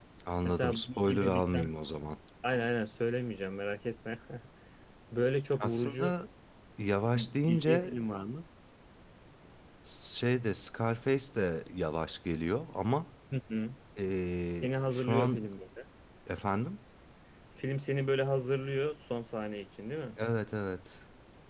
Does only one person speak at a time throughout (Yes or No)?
No